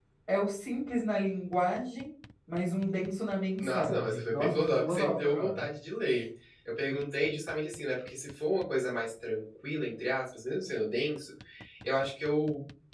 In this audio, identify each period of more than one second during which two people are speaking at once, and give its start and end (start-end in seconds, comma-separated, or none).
3.6-5.7